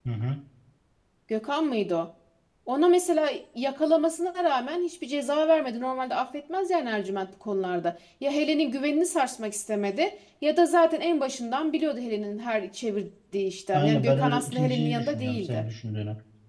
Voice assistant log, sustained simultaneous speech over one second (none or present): present